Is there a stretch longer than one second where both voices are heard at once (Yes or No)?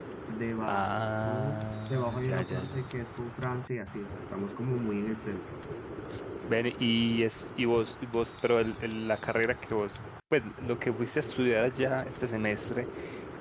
Yes